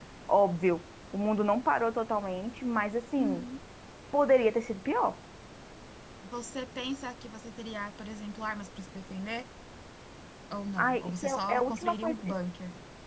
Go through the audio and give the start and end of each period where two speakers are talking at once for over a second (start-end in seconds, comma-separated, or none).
10.8-12.2